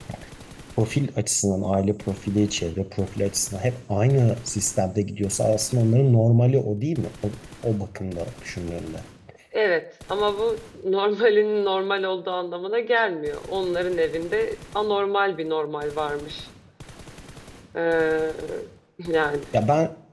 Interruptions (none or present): none